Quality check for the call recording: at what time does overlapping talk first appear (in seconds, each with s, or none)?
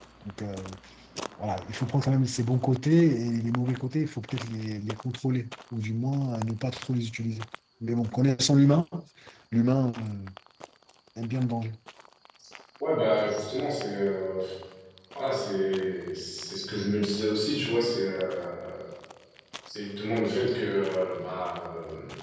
none